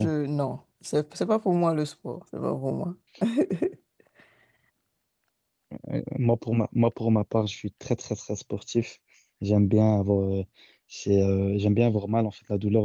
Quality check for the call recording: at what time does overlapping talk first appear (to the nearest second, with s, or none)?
none